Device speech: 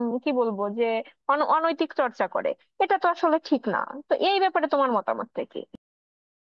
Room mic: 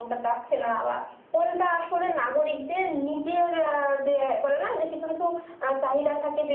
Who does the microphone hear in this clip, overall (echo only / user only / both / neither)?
user only